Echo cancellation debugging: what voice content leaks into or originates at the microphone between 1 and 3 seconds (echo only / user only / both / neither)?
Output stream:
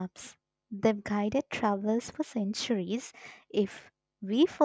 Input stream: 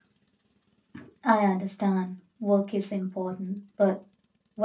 user only